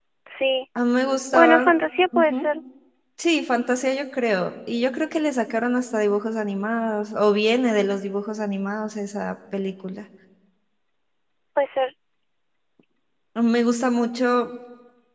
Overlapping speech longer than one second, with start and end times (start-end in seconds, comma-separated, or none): none